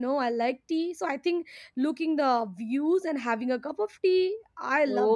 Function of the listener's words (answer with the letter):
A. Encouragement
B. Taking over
B